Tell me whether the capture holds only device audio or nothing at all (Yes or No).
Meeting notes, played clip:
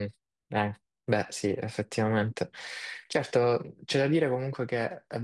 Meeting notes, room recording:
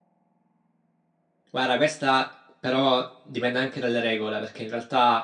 No